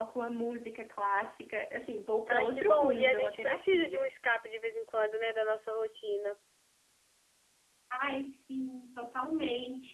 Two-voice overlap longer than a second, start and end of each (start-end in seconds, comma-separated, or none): 2.3-4.1